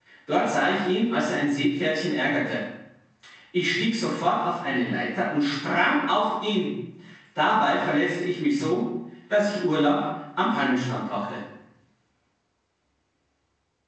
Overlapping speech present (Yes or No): No